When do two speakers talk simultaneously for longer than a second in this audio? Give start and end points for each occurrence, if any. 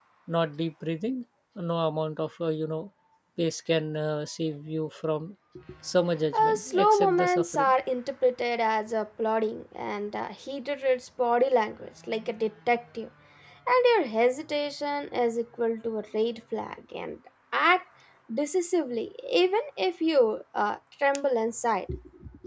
6.4-7.7

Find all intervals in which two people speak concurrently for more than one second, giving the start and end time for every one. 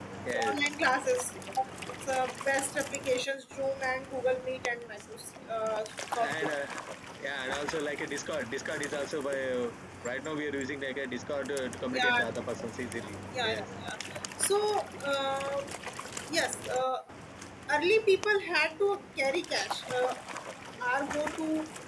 none

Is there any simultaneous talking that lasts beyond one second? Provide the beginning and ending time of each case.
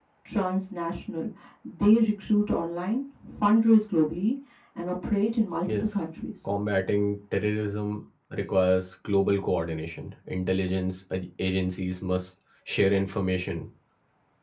none

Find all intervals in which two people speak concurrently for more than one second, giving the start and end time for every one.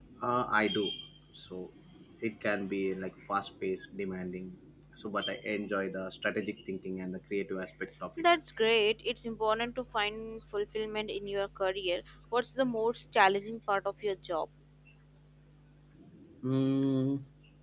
none

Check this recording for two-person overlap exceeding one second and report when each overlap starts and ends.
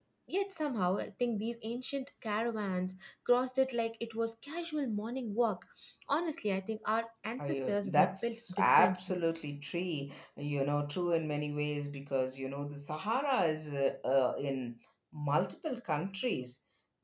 7.4-9.2

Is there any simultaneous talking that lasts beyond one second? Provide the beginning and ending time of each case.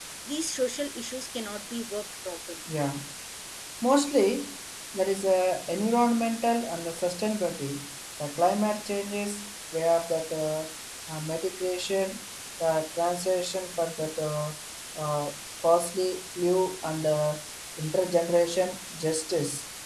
none

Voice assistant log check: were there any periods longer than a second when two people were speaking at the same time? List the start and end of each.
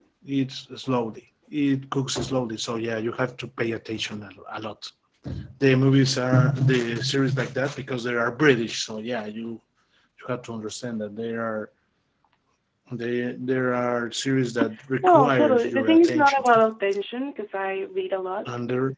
15.0-16.4

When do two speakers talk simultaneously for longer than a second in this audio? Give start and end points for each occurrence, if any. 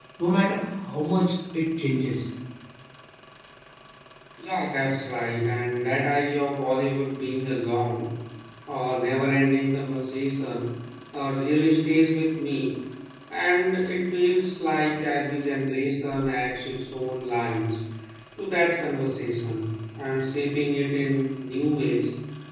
none

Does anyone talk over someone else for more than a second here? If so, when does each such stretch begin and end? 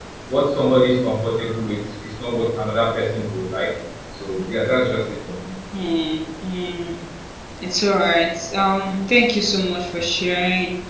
none

